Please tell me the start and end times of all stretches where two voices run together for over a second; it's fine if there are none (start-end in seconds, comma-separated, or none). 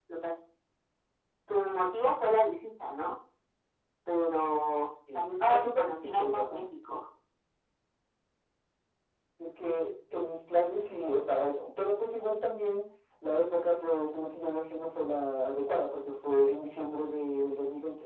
5.1-6.6